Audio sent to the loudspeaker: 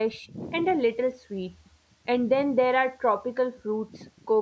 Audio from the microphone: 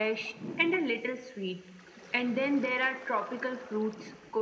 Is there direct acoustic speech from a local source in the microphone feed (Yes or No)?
No